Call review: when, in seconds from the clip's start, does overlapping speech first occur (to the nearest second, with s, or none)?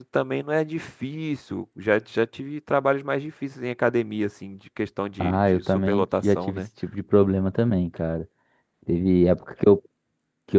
5 s